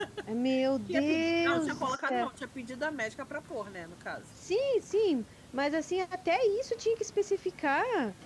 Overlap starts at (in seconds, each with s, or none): 0.9 s